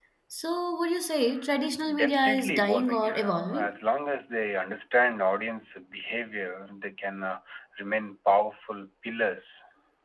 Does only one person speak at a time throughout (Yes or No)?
No